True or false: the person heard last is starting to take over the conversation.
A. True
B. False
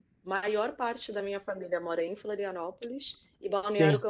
B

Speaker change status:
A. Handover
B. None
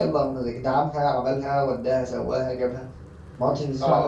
A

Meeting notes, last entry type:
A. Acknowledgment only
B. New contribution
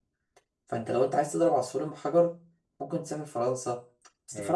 A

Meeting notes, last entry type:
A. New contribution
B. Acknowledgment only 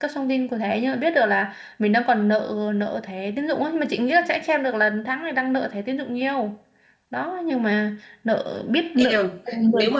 A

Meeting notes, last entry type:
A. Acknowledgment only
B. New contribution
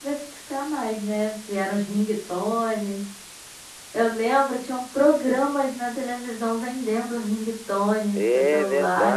B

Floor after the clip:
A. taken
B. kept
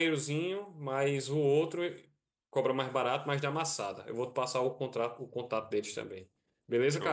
A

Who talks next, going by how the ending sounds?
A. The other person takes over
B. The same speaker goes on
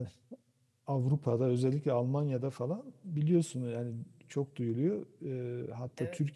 B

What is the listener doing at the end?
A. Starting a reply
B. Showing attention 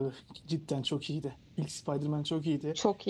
B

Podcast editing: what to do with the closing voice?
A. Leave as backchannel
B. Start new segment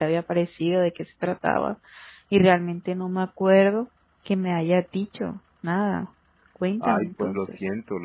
B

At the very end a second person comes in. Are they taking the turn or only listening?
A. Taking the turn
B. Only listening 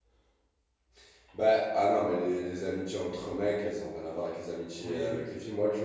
B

